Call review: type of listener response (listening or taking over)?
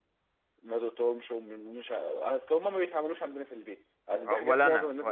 taking over